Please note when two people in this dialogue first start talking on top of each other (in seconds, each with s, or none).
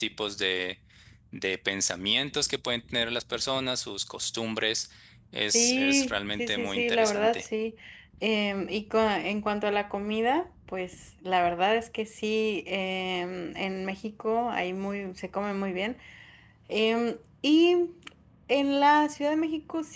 5.5 s